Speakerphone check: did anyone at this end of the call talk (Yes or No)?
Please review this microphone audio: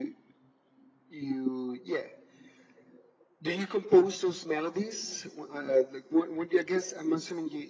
No